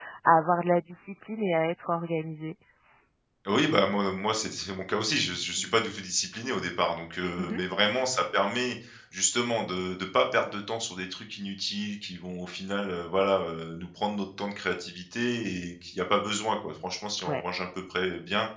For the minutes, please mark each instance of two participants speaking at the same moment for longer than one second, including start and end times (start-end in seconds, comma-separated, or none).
none